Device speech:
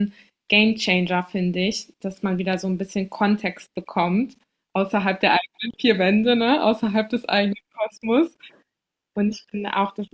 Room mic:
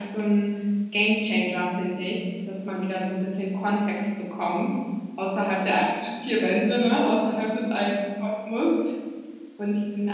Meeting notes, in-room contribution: none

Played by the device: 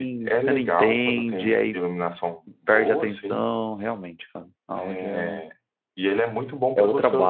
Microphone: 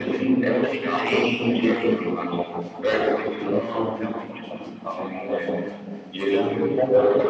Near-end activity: none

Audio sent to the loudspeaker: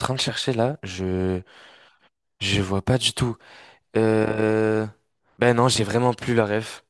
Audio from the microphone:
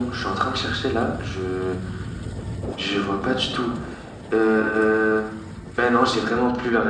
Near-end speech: none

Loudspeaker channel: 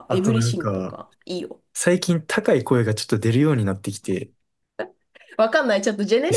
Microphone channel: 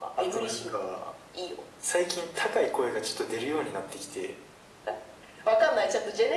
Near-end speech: none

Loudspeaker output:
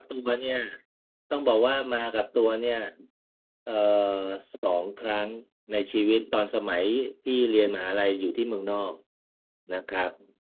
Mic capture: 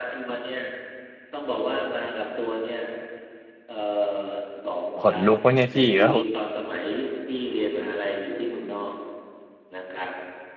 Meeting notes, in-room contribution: present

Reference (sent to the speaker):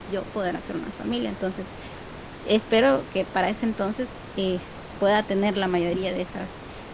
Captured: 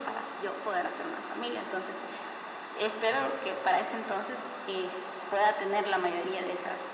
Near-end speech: none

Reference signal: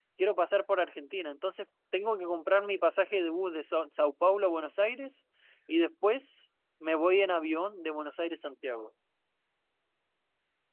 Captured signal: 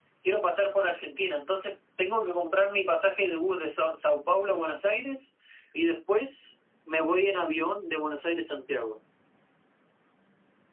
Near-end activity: none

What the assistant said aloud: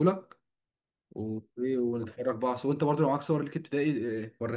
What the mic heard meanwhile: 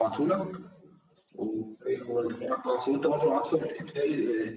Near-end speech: none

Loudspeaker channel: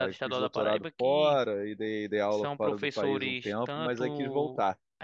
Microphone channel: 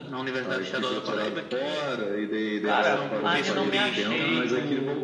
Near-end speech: present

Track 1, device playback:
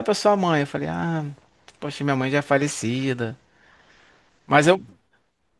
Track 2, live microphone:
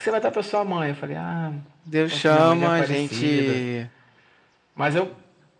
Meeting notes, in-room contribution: present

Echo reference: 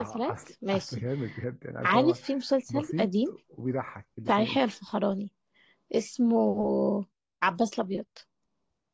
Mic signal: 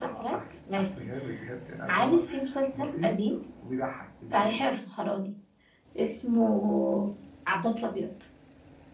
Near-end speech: none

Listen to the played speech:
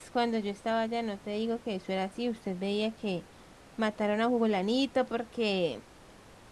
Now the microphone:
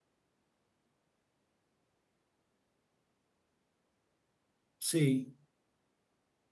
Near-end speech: present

